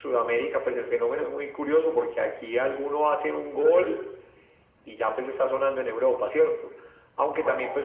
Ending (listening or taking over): listening